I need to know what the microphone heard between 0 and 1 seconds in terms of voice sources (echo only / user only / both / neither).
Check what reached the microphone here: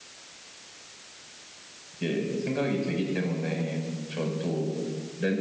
neither